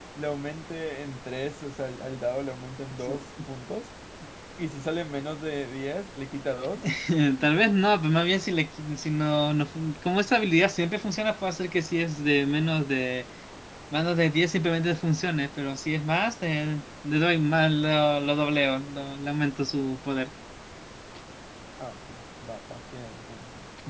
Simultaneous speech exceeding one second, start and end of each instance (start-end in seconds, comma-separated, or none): none